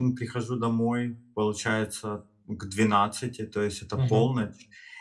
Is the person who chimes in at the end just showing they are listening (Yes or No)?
Yes